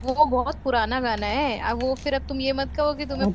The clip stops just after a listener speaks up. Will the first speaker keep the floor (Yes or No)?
No